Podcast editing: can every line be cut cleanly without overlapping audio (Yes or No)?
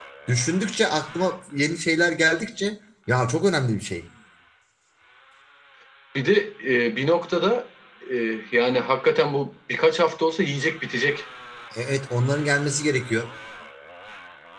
Yes